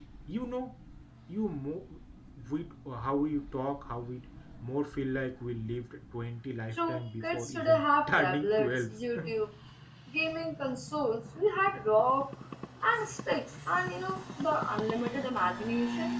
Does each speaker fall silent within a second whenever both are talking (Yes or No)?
No